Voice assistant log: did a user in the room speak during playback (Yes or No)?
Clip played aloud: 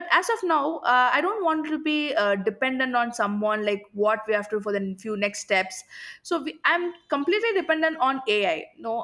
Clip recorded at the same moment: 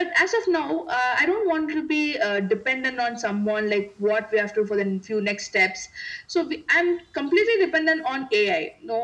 No